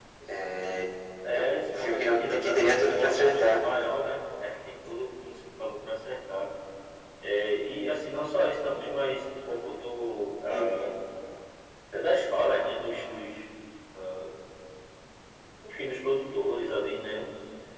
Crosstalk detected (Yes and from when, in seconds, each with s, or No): Yes, from 1.3 s